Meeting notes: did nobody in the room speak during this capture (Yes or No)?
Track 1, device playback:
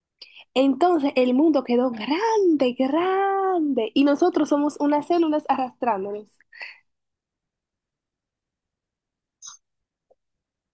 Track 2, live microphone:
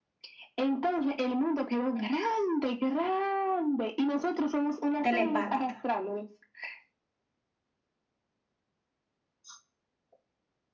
No